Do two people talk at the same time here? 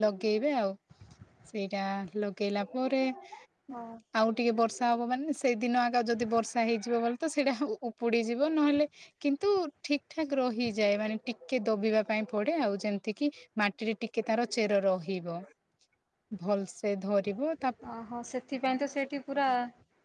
No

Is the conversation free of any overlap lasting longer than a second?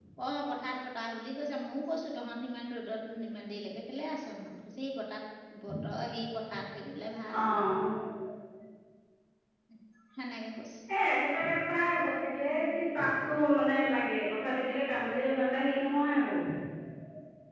Yes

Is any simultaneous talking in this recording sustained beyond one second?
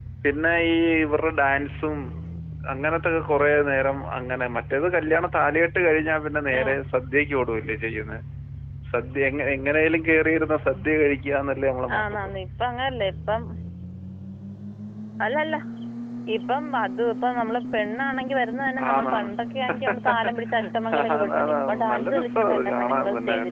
Yes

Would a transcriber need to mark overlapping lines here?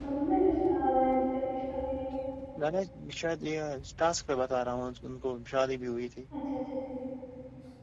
No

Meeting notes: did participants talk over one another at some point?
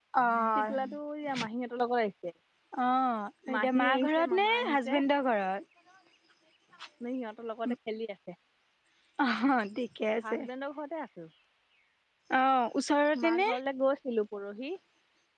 Yes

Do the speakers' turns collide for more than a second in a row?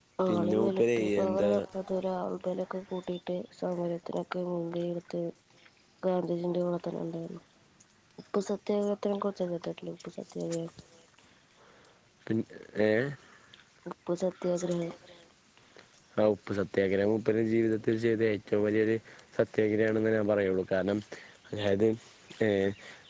Yes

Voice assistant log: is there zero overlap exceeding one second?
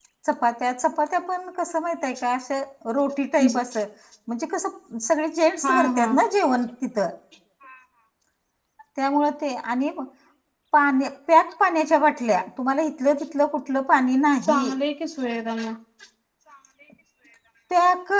Yes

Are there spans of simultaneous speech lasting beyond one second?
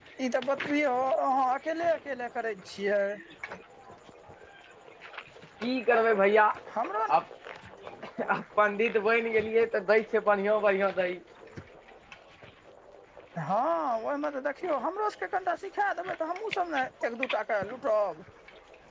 No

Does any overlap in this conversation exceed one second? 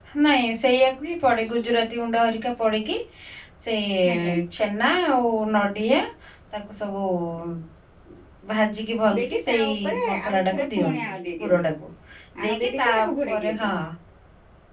Yes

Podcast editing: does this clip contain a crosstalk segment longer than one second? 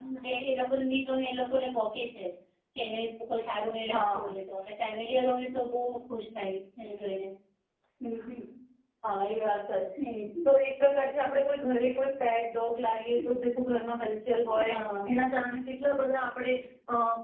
No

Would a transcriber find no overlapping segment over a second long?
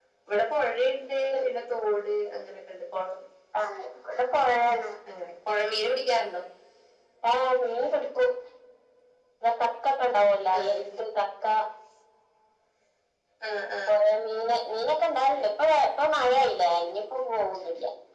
Yes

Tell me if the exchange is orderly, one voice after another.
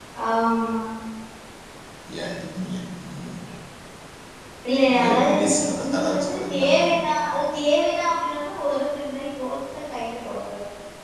No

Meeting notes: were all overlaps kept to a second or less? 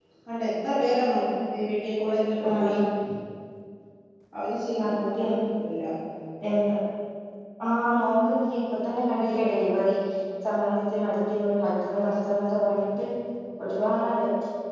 Yes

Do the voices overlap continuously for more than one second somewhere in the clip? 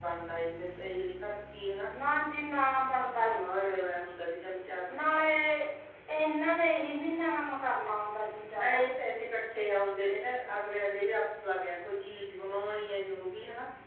No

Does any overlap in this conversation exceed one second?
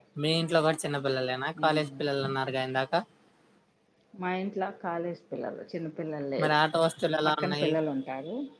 No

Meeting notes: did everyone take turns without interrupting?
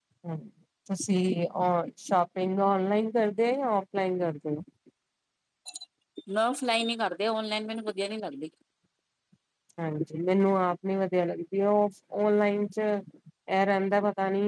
Yes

